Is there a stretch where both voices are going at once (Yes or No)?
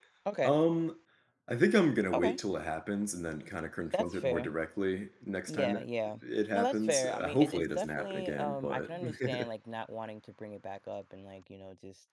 Yes